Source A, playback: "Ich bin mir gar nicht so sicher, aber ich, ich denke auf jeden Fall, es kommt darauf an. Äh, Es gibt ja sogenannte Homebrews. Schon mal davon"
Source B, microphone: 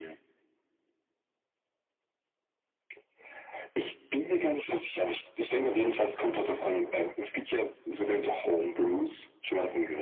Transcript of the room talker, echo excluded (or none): none